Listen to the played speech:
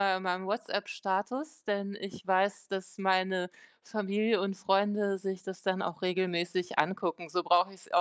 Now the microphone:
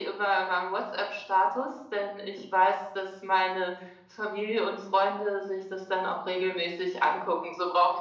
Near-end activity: none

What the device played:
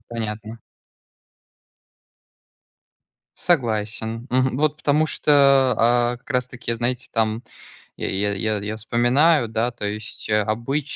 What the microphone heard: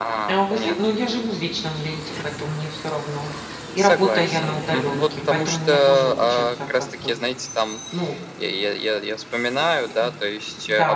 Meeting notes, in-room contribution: present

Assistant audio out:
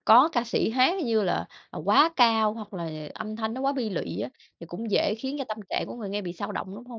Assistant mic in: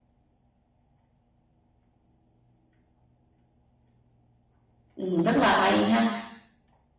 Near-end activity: present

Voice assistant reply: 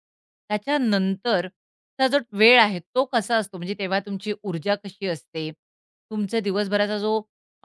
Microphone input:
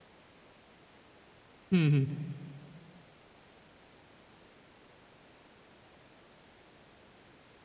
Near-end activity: present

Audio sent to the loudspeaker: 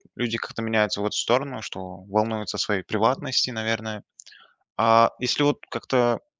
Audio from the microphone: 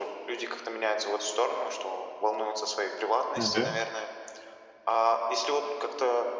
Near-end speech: present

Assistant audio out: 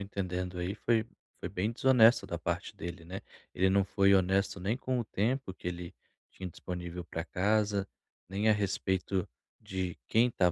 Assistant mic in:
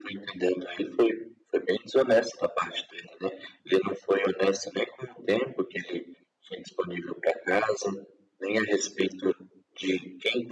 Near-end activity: none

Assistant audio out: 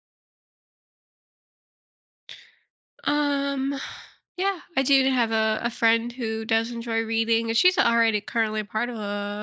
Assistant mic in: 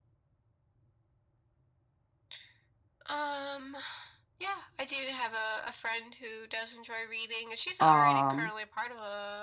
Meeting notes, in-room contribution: present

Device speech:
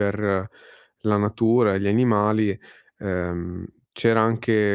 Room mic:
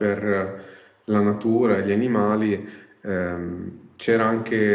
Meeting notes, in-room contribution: none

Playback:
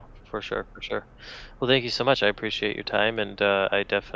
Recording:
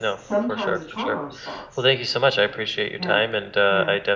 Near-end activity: present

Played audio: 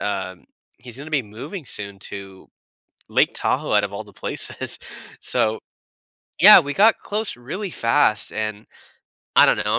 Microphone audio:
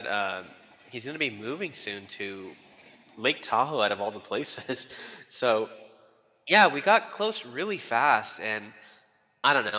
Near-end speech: none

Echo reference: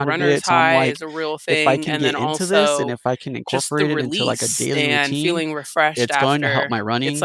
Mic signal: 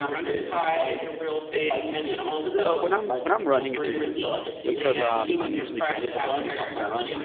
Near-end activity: present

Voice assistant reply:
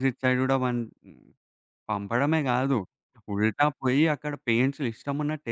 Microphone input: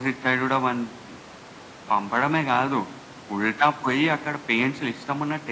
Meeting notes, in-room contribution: none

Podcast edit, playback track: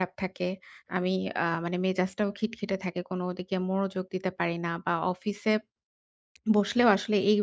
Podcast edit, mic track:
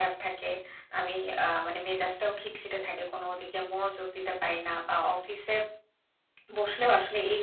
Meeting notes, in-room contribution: none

